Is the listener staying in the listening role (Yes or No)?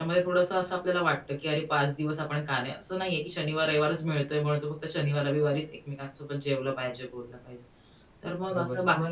No